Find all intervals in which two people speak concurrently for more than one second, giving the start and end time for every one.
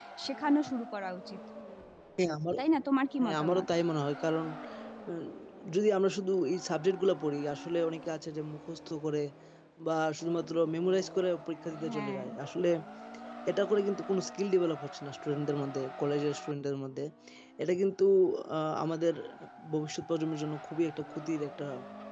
none

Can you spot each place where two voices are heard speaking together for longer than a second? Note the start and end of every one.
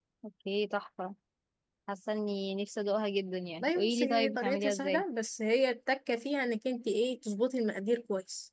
3.6-5.0

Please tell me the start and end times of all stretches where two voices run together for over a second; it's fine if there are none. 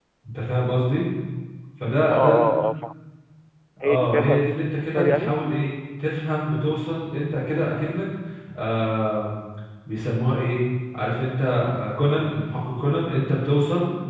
3.8-5.4

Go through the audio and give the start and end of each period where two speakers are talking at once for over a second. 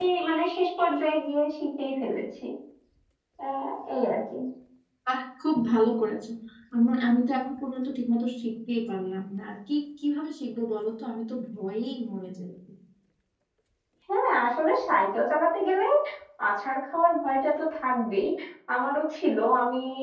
none

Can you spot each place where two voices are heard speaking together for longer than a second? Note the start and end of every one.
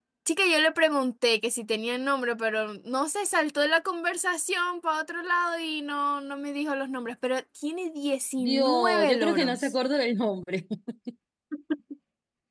8.4-9.7

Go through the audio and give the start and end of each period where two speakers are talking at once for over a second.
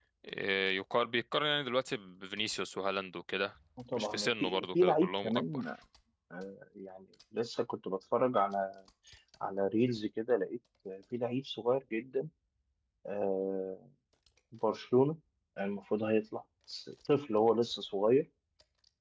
3.9-5.7

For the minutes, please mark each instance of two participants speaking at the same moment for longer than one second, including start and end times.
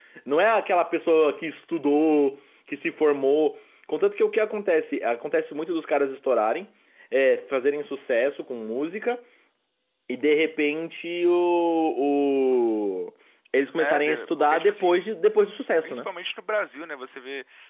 13.8-15.1

